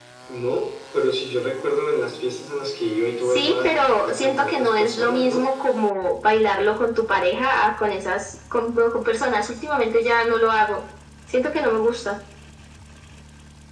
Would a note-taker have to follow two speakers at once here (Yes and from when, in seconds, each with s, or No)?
Yes, from 3.2 s